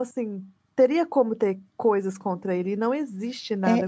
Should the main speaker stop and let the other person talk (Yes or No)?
Yes